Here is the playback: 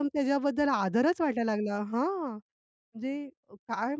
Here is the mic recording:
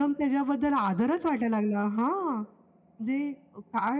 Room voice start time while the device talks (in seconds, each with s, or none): none